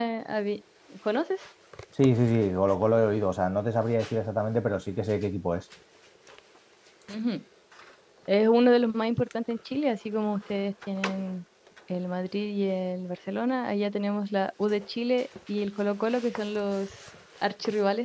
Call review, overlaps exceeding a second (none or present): none